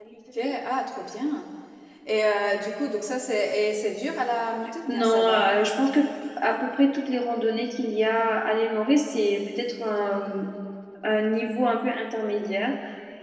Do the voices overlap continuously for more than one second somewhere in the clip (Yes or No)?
No